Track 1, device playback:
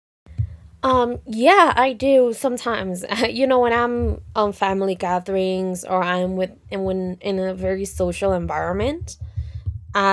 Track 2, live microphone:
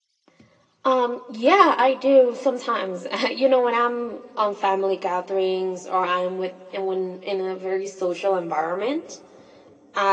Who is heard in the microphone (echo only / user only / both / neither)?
echo only